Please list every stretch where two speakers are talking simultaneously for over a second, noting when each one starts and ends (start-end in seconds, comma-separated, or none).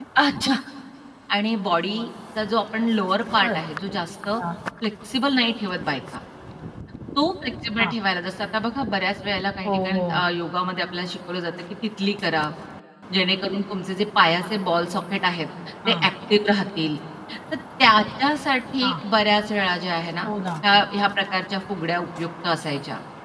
none